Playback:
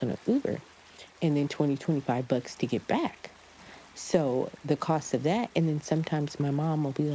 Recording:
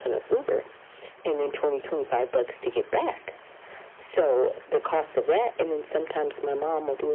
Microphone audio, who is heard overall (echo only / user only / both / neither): echo only